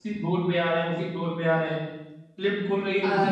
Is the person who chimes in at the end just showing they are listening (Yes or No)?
Yes